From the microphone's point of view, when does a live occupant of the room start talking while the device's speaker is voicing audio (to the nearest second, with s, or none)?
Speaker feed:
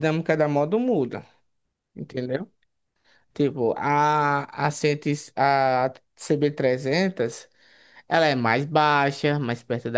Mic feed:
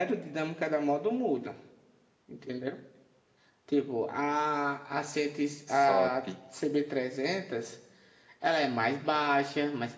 6 s